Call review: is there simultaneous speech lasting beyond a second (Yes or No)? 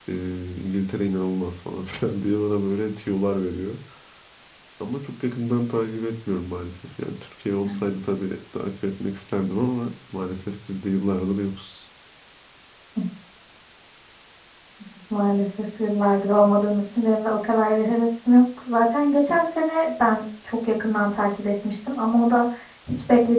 No